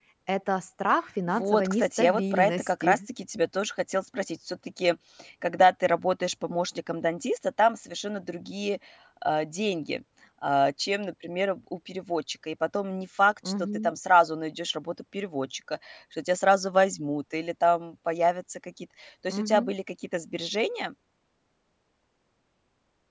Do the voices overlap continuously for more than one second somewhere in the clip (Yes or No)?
Yes